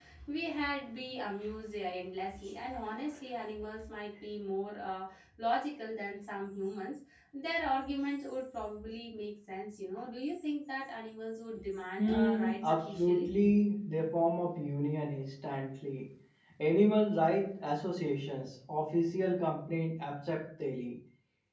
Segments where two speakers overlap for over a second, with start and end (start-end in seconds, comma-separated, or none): 12.0-13.3